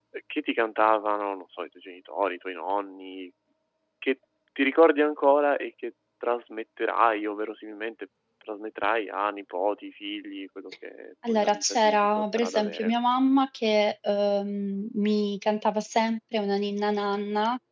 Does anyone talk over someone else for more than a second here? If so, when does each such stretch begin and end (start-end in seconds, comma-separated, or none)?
11.3-12.9